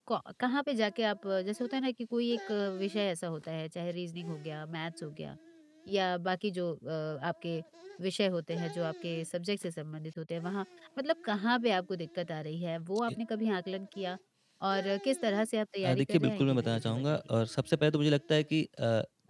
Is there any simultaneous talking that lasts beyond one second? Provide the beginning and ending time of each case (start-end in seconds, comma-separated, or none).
15.9-17.2